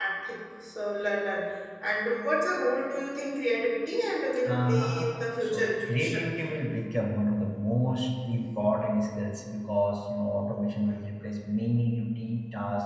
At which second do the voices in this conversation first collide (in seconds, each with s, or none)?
4.4 s